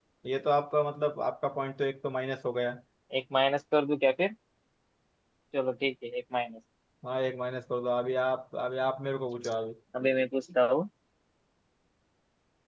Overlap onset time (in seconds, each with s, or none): none